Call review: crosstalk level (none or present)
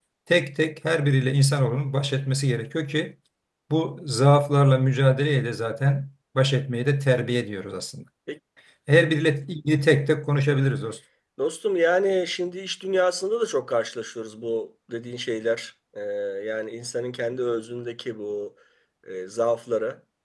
none